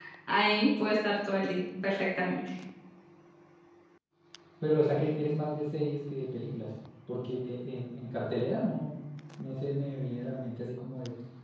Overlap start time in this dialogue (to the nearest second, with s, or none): none